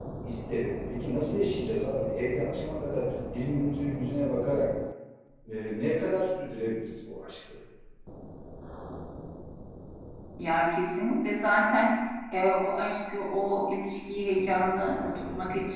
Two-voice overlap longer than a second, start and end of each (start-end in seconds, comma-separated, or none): none